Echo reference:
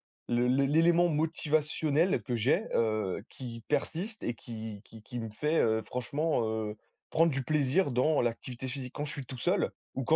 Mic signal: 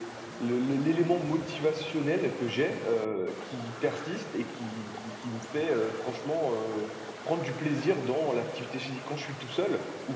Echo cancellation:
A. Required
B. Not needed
A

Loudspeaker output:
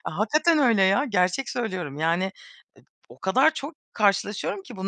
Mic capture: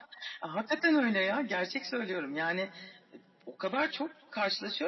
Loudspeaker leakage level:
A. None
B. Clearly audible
B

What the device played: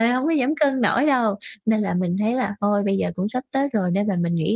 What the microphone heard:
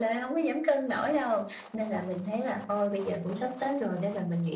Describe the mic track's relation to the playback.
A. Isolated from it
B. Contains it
B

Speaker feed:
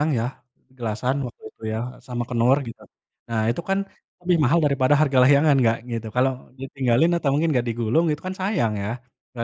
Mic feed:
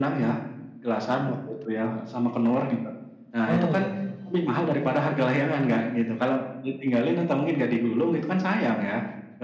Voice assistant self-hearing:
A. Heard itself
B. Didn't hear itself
A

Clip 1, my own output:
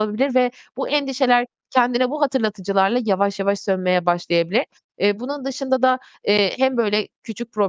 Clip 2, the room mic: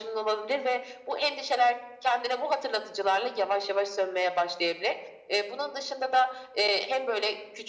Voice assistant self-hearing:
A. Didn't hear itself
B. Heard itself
B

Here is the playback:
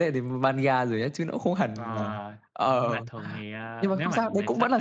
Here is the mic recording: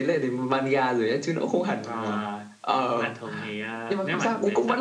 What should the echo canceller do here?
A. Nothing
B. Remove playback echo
B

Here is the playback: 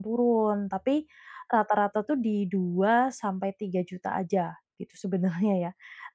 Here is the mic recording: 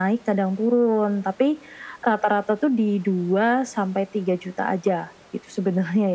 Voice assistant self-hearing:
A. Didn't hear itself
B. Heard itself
B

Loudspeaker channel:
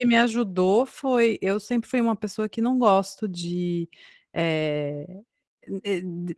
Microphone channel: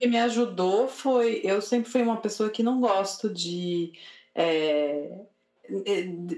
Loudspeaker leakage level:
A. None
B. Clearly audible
B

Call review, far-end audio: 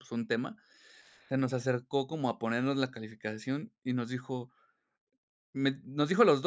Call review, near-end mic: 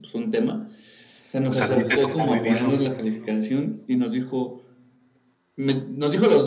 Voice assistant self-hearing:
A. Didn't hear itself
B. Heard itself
B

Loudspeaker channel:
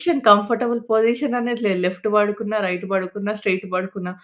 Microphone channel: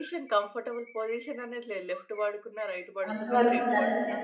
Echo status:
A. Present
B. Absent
A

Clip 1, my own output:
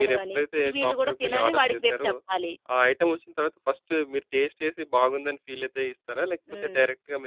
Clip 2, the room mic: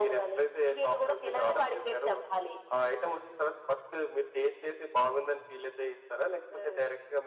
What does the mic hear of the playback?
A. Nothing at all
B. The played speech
B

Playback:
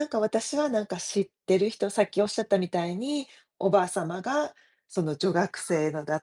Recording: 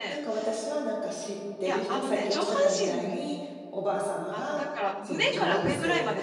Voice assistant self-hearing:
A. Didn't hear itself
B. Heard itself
B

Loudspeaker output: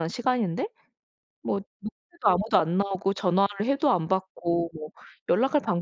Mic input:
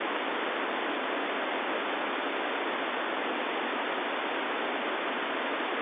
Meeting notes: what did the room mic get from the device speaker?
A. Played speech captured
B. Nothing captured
B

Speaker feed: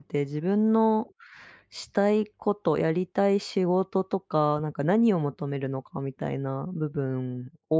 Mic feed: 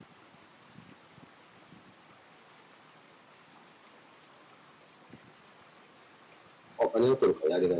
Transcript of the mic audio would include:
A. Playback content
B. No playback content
B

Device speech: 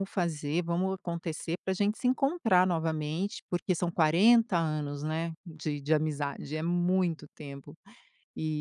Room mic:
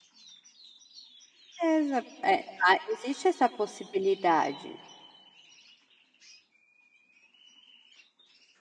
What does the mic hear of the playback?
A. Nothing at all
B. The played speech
A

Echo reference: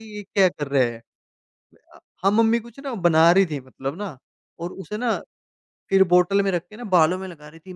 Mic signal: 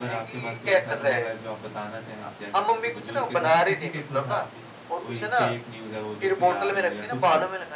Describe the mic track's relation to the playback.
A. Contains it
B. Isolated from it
A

